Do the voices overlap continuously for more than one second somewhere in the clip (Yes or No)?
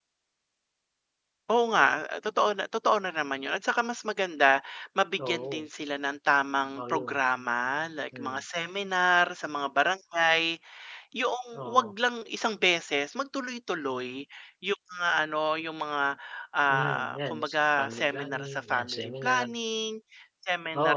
Yes